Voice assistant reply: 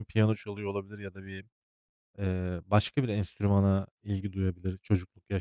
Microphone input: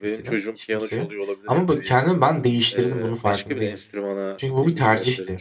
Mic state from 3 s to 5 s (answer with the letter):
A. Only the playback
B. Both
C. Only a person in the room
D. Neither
B